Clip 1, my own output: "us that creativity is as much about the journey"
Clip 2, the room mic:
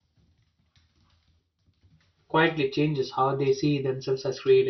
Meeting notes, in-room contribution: present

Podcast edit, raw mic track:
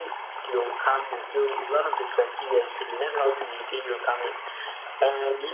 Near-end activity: none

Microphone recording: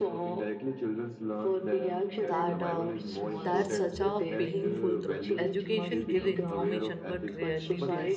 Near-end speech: present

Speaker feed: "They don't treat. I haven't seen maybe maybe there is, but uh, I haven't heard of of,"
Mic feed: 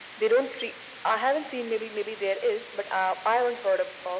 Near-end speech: none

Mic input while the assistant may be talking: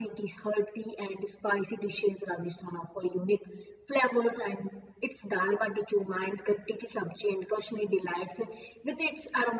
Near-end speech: none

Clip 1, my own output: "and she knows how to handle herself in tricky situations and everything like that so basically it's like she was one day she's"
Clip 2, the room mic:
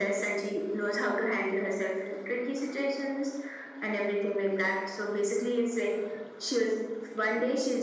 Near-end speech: none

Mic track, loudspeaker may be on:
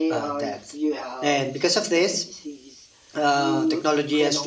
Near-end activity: present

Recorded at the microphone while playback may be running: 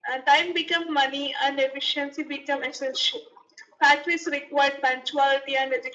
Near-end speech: none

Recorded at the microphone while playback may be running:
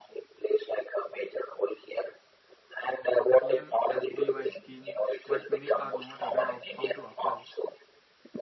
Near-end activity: present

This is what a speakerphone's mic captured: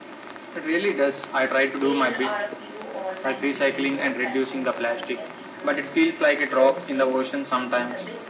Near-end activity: present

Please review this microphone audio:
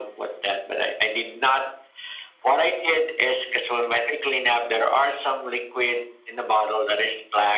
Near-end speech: none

